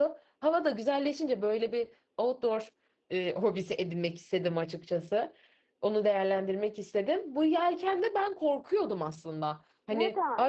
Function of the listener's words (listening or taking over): listening